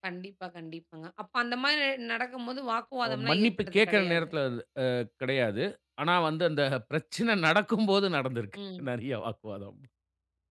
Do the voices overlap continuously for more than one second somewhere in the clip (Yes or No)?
Yes